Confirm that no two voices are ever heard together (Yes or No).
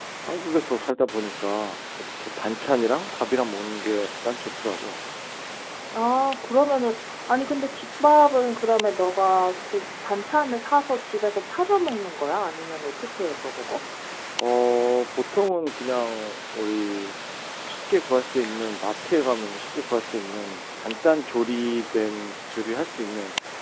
Yes